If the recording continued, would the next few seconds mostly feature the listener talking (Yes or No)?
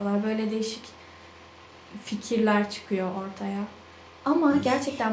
No